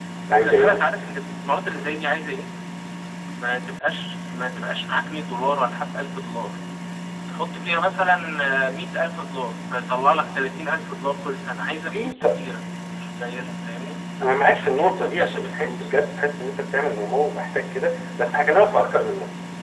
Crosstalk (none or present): present